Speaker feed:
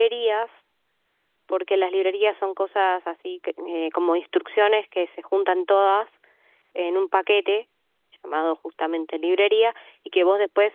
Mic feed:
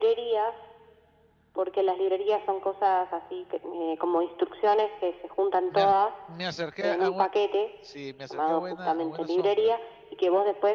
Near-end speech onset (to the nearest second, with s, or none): 6 s